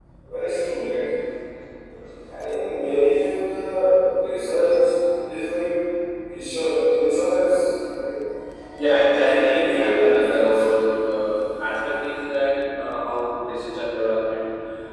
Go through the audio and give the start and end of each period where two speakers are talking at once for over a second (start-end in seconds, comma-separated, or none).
9.1-10.7